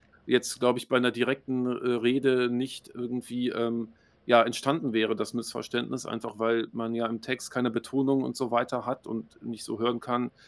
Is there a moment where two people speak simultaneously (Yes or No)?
No